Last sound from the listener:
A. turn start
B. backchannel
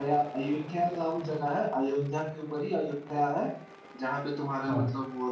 B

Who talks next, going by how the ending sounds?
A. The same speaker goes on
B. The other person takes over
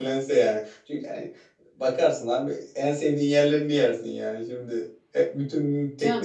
B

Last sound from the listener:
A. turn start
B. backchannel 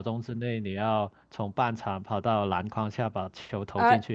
A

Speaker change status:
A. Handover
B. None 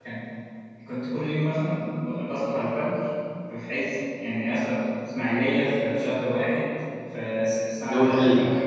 B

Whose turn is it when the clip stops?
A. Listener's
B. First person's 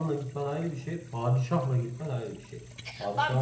A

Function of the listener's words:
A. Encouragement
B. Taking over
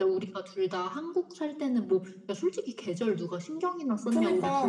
B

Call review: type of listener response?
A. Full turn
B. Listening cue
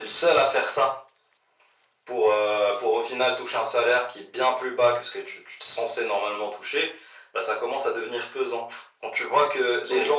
B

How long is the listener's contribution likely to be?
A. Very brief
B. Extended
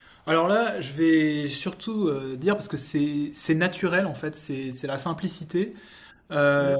A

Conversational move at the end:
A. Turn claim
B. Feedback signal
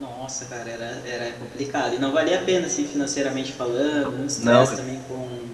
B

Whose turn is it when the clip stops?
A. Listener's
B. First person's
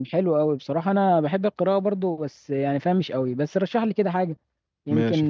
A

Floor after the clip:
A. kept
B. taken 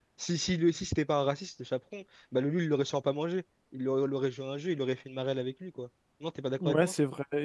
B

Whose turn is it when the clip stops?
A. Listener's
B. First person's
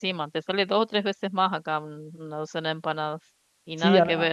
A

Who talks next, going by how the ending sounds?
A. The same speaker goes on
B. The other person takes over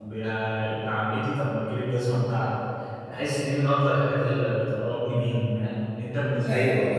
B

